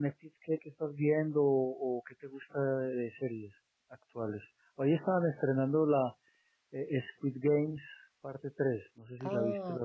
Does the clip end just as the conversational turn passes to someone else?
Yes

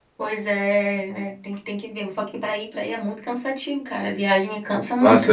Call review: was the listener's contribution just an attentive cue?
No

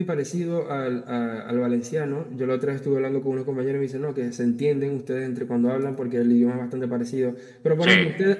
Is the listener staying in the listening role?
Yes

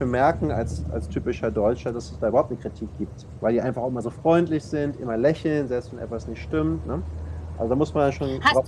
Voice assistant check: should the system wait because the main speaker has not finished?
No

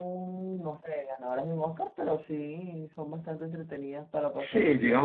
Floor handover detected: Yes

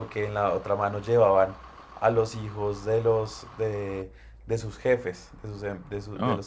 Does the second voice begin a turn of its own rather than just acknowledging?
No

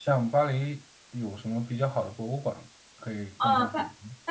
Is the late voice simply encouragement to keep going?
No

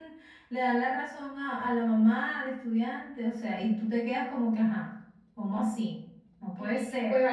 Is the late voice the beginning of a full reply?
Yes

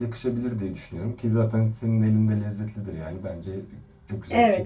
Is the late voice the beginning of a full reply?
Yes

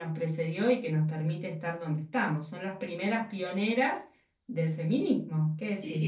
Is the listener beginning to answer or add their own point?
Yes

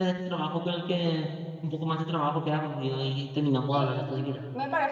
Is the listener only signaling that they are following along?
No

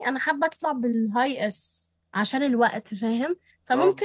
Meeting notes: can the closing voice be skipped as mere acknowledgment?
Yes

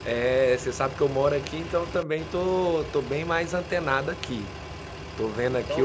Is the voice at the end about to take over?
Yes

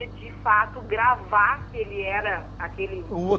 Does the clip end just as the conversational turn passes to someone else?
Yes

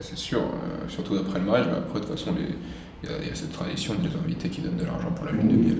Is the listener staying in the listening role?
No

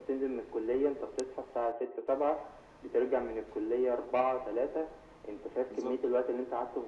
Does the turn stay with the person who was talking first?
Yes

